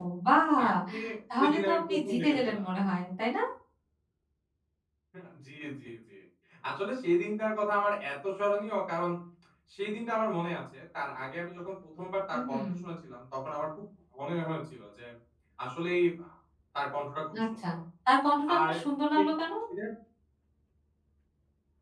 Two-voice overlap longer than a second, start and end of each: 1.4-2.6

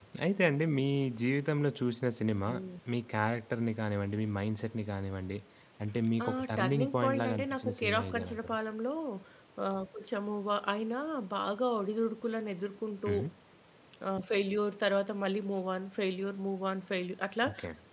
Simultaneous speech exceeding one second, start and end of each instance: 6.2-8.5

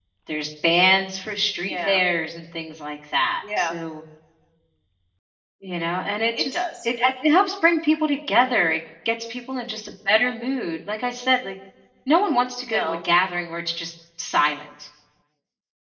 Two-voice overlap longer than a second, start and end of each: none

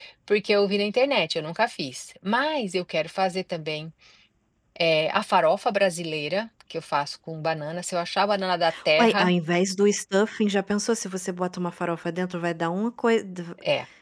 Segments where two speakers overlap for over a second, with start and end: none

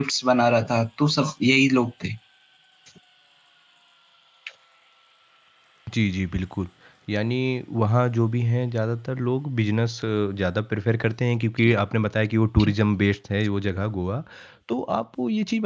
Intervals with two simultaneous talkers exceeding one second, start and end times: none

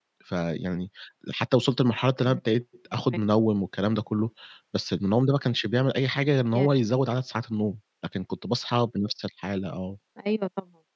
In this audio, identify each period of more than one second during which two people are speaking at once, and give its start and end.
none

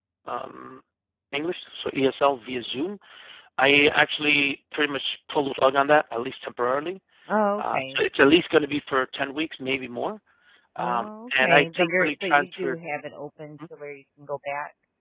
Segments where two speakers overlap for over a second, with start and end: 10.8-12.8

